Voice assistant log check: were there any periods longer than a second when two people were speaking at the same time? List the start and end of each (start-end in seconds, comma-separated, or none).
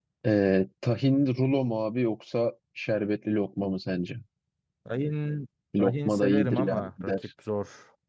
5.8-7.2